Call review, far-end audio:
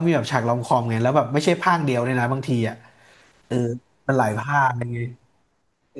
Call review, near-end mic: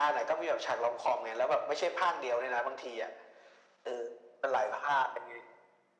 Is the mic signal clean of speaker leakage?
No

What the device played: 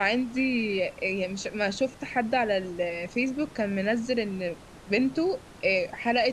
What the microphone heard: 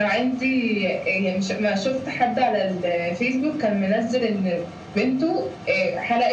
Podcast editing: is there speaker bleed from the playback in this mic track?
Yes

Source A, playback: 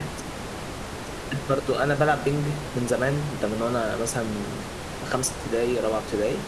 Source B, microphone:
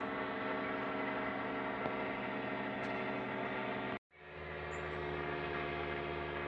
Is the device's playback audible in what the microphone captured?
No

